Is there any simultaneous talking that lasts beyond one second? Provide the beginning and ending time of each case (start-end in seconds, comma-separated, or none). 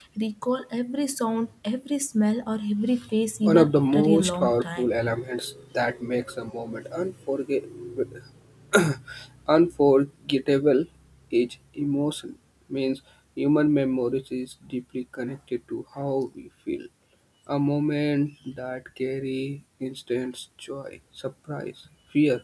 3.4-4.9